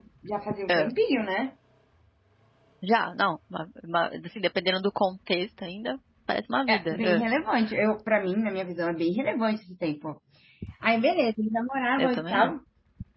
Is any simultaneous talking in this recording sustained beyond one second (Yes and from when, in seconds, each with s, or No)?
No